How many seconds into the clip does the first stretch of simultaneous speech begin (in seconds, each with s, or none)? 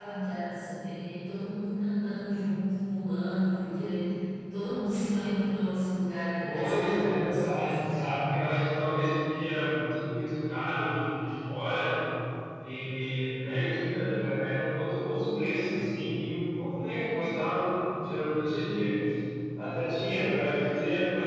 6.5 s